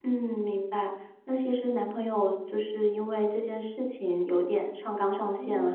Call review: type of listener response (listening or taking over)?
listening